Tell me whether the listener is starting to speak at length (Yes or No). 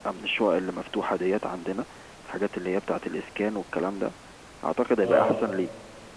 No